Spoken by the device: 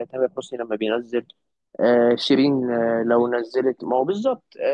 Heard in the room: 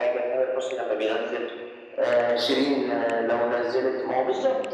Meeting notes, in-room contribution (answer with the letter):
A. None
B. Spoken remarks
A